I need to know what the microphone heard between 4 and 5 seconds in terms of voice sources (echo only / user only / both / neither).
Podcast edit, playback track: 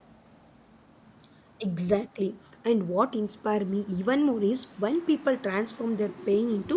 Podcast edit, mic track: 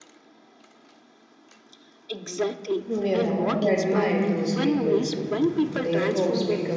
both